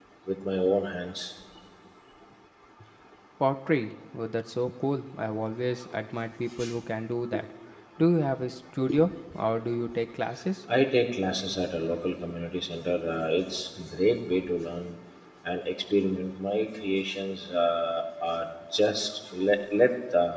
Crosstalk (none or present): none